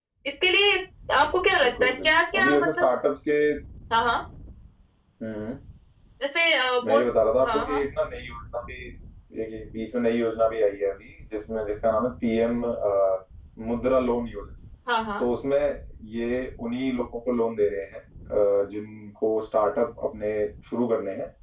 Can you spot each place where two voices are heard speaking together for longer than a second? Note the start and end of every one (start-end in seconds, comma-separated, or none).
1.6-2.9